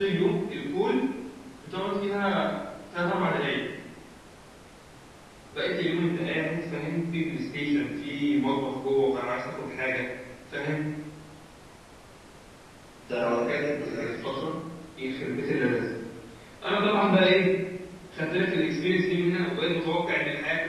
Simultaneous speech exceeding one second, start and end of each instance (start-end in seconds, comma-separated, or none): 13.1-14.3